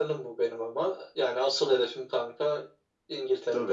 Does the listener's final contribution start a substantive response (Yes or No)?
Yes